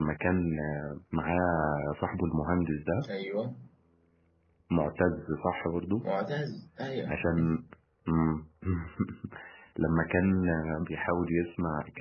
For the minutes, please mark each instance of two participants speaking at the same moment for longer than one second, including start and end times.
none

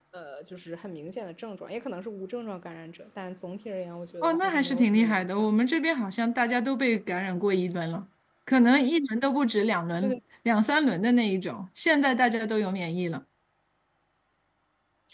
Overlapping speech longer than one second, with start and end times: 4.2-5.5

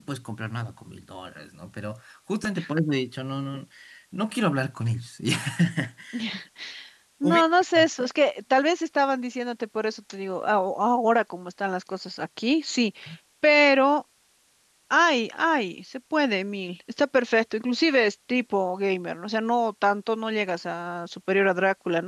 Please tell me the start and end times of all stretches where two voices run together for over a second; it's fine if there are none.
none

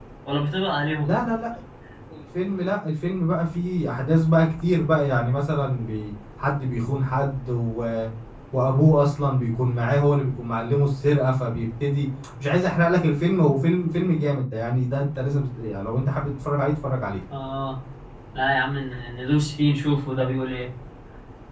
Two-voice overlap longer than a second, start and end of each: none

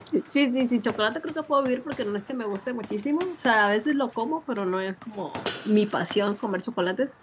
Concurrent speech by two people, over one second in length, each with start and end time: none

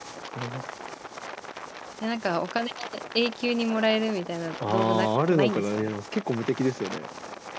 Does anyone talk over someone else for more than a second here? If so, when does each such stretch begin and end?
4.7-5.9

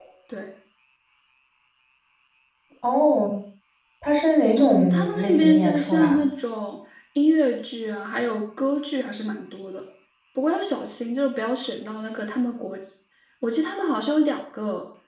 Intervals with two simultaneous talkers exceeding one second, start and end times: 4.6-6.2

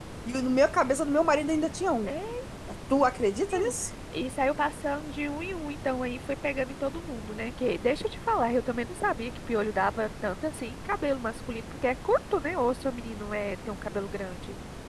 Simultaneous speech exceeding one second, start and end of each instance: none

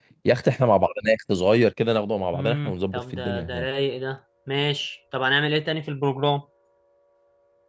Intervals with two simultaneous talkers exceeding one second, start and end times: 2.3-3.7

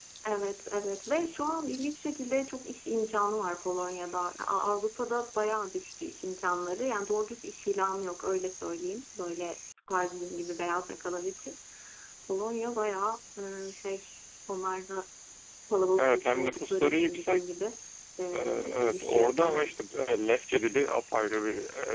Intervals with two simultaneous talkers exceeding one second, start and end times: 16.0-17.4, 18.3-19.7

